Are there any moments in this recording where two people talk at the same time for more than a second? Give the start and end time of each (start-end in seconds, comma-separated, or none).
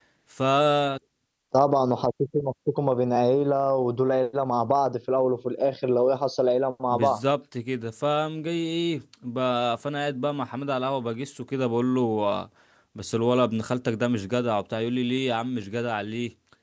none